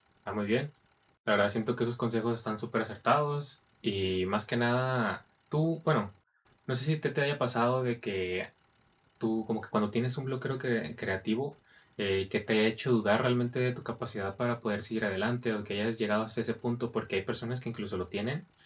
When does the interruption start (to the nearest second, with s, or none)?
none